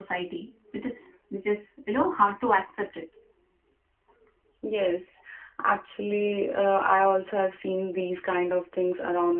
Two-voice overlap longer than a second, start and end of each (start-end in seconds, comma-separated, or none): none